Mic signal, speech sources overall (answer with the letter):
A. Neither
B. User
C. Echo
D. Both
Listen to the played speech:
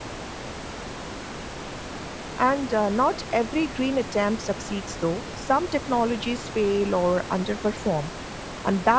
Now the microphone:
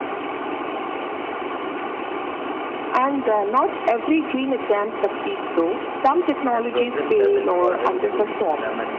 D